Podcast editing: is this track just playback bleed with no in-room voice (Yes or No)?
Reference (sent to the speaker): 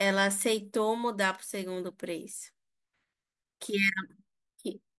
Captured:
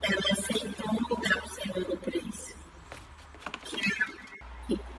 Yes